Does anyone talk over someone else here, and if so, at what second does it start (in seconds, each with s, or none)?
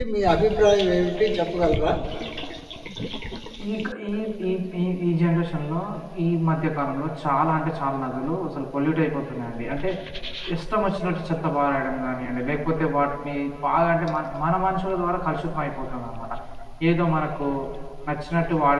none